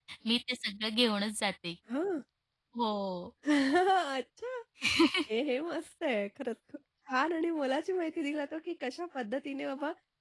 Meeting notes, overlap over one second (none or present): none